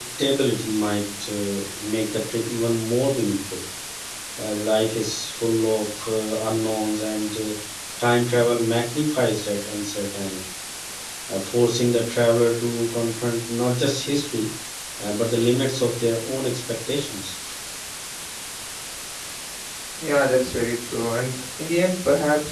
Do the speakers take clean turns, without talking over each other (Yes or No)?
Yes